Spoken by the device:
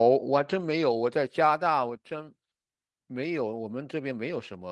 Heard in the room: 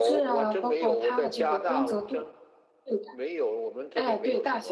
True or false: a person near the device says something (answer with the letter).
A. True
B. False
A